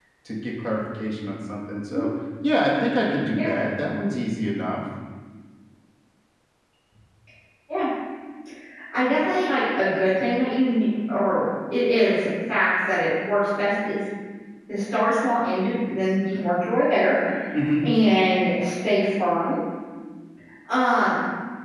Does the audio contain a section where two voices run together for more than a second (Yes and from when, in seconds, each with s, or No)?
No